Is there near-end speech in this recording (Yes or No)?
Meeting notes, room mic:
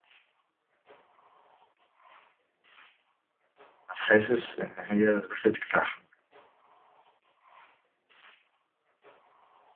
Yes